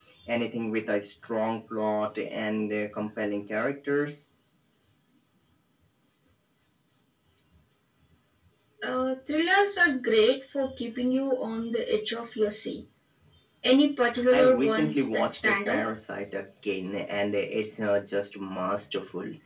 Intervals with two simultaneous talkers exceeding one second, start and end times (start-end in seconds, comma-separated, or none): 14.3-15.8